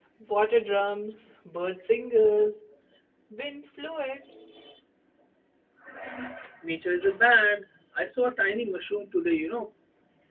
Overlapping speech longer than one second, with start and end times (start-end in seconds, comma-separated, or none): none